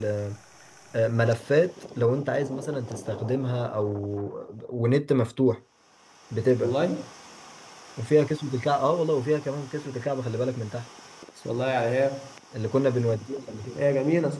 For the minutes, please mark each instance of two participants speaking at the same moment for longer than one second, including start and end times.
none

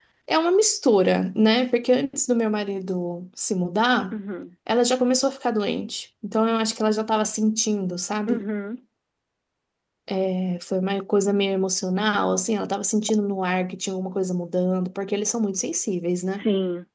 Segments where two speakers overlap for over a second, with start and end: none

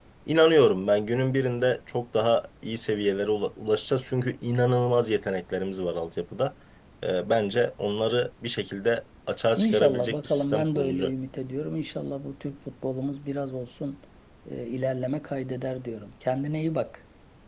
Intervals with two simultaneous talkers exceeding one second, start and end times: 9.6-11.1

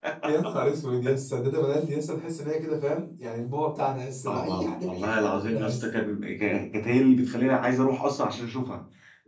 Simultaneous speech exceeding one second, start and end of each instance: 4.3-5.9

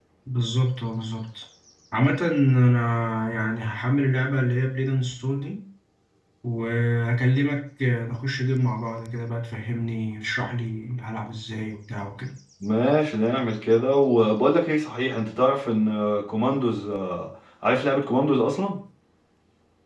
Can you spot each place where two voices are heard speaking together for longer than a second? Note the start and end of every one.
none

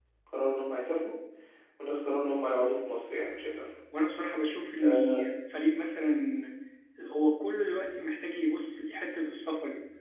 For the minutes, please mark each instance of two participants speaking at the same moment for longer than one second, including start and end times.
none

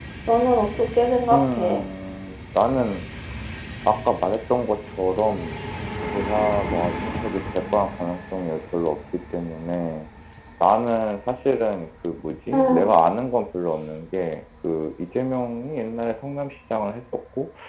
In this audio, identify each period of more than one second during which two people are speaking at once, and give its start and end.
none

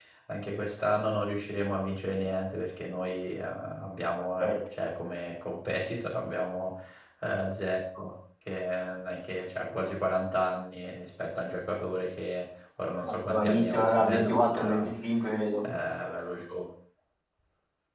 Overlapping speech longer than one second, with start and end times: 13.0-14.8

